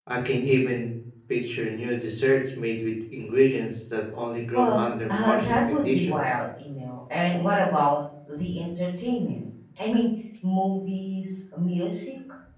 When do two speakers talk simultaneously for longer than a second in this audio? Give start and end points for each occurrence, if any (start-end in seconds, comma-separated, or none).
4.5-6.4